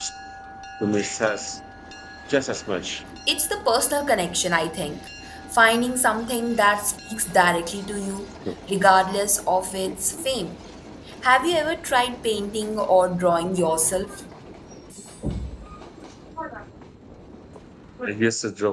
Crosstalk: none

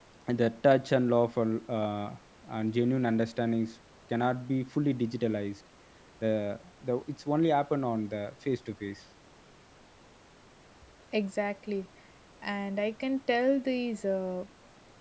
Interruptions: none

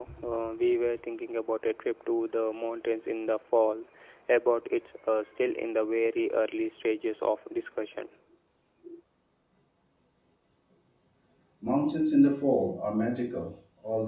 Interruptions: none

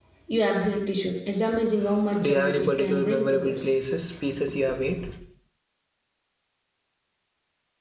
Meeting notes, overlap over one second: present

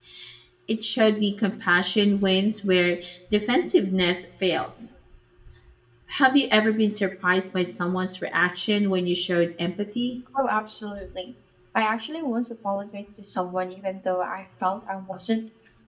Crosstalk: none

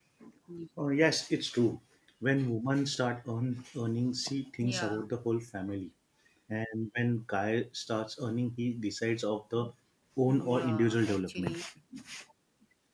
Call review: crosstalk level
present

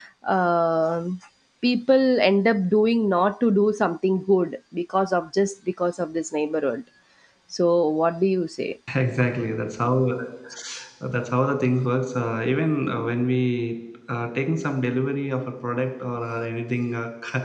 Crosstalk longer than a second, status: none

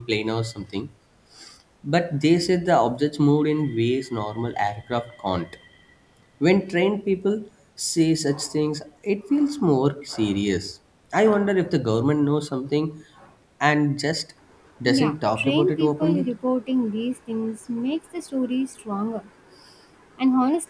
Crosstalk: present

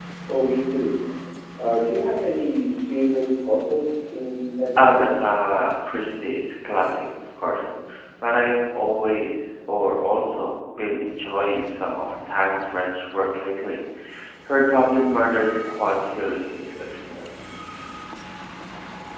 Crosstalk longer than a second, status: none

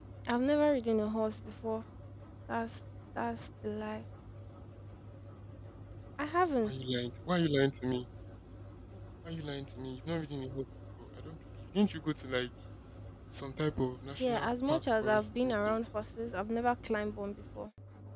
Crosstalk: present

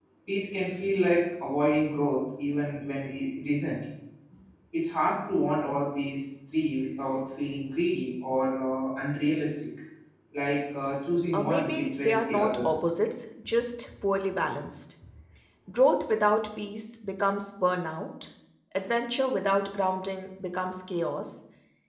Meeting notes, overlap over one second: present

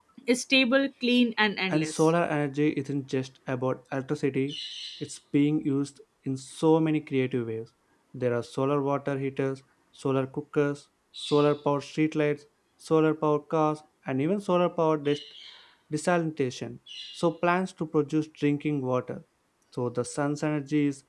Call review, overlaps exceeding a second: none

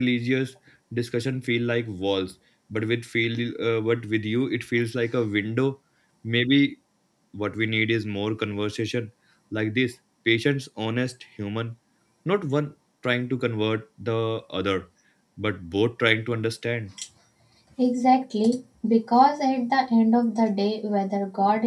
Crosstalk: none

